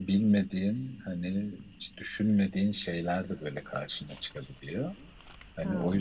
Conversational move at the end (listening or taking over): listening